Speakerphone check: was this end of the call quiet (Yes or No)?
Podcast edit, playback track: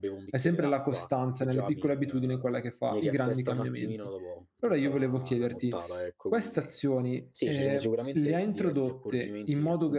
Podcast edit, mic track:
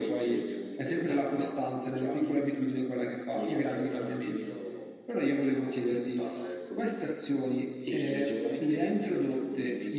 Yes